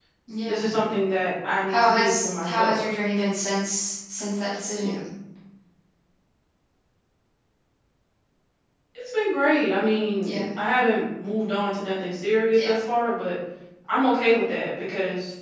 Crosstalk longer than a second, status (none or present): present